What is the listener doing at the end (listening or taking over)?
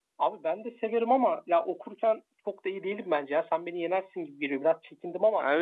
taking over